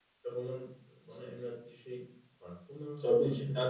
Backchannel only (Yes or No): No